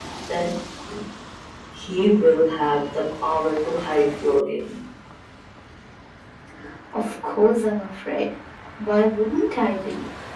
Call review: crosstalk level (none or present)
none